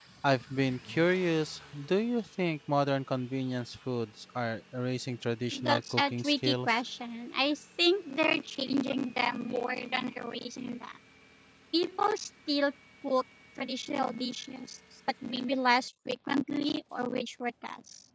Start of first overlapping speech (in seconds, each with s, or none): 5.5 s